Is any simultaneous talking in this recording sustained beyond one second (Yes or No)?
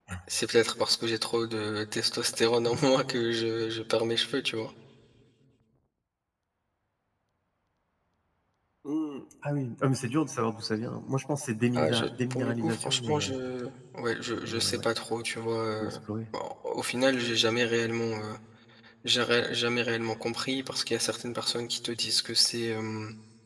Yes